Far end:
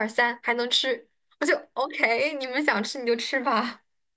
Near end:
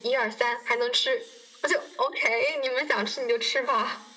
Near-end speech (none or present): none